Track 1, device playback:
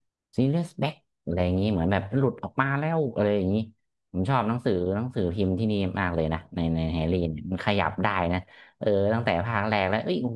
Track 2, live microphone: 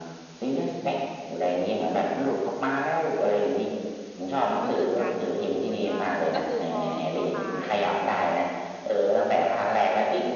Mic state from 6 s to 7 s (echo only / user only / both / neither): both